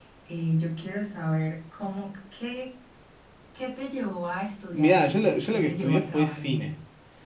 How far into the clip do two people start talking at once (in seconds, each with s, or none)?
4.7 s